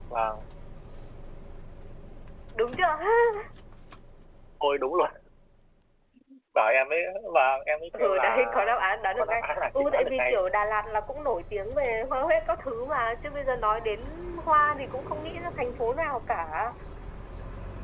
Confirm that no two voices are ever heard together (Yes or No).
No